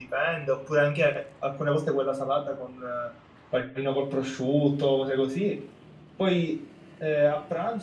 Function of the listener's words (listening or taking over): listening